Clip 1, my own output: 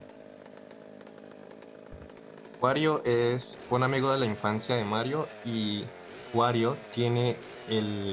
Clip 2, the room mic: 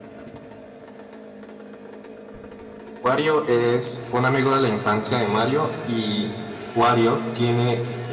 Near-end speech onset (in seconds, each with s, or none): none